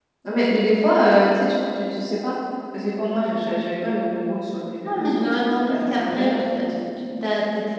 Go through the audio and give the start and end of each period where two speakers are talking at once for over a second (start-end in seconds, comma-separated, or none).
4.8-6.6